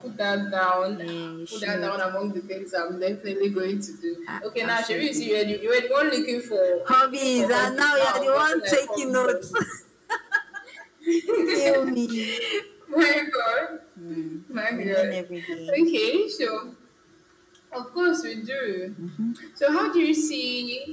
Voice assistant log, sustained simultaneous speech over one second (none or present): present